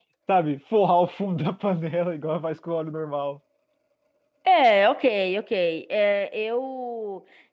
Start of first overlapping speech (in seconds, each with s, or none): none